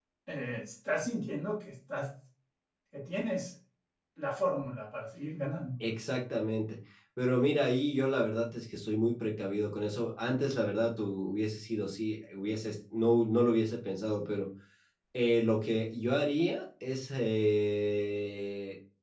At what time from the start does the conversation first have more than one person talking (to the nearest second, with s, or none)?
none